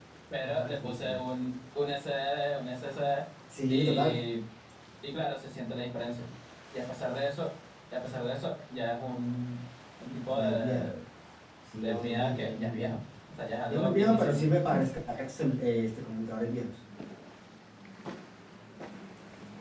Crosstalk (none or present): present